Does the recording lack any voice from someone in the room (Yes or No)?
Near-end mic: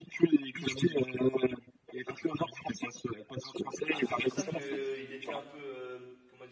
No